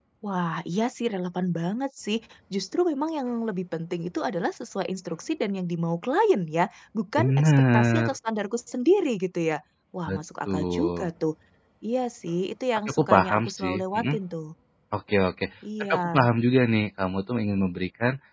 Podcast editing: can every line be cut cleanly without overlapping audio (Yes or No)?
No